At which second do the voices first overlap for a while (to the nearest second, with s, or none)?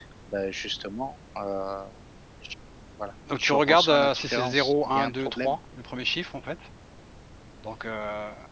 3 s